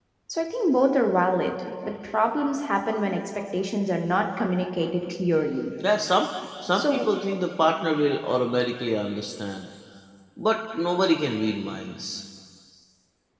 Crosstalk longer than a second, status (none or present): none